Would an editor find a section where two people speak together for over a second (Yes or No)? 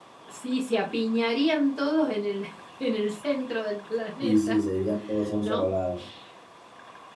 No